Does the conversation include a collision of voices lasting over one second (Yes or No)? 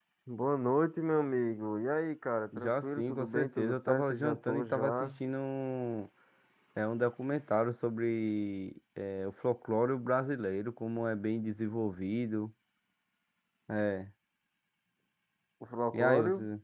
Yes